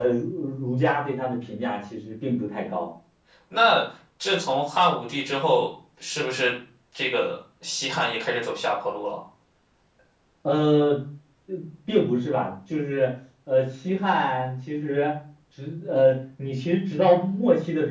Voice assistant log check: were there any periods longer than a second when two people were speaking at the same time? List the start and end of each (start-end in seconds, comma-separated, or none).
none